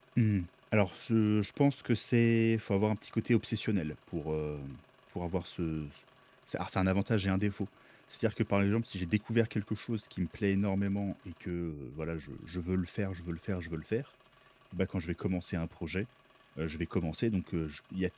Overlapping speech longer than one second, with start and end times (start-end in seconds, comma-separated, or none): none